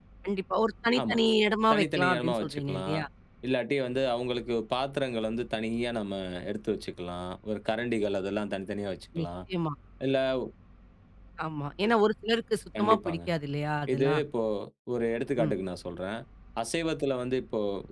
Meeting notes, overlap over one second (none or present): present